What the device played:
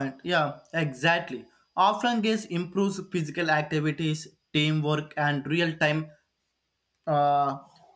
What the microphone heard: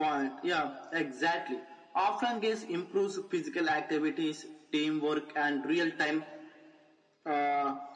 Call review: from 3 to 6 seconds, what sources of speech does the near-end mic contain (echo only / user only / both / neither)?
echo only